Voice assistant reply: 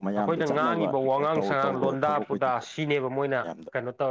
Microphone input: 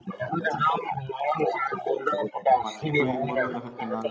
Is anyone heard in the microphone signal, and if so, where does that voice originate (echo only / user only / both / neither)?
both